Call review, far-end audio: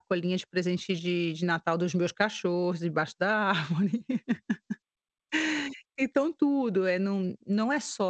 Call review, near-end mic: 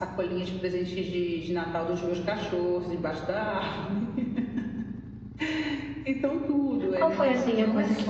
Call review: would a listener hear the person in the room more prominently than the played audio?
Yes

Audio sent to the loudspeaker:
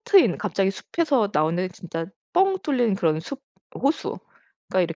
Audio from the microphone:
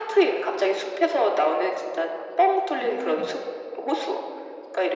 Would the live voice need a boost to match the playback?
Yes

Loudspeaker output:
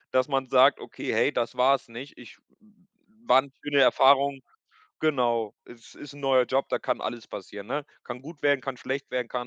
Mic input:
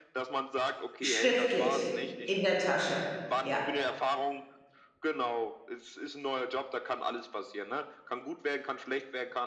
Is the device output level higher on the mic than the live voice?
No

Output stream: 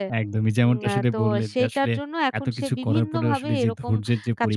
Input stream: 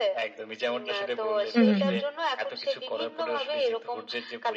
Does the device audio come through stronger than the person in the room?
No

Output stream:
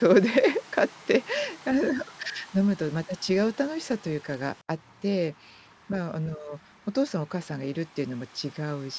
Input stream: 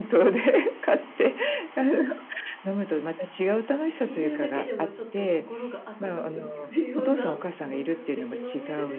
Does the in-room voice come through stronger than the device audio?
No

